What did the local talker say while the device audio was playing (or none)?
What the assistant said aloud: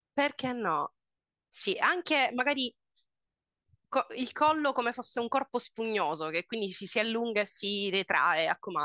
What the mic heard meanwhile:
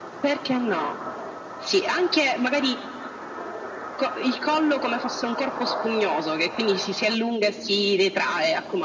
none